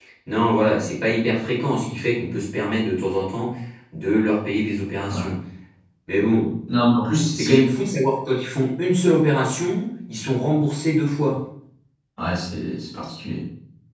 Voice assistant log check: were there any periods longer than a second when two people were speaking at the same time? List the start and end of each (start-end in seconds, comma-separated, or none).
none